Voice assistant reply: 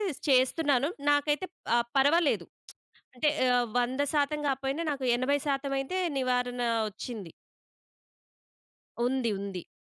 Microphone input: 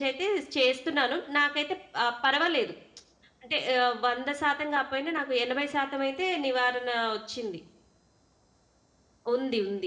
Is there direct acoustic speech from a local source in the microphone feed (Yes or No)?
No